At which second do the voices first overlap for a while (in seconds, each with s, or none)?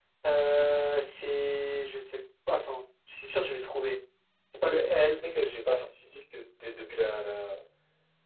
none